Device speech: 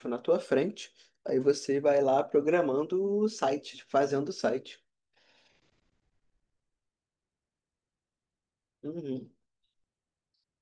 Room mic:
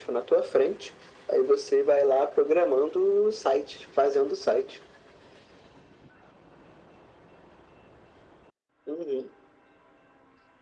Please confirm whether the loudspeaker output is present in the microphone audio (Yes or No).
Yes